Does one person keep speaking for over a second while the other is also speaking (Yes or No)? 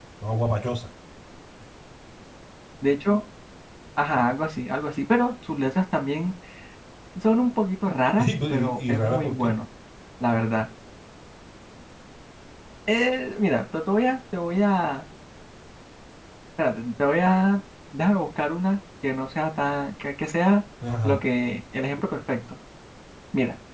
Yes